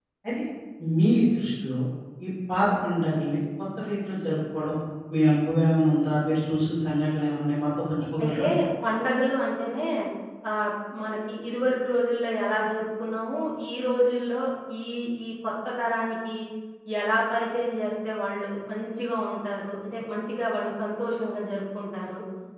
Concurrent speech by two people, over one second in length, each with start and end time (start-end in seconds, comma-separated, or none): none